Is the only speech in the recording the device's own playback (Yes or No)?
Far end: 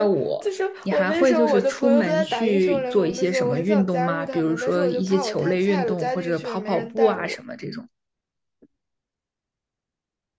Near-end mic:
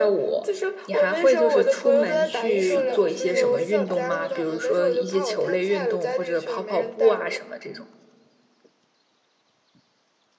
No